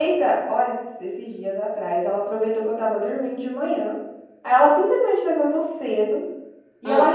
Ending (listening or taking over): listening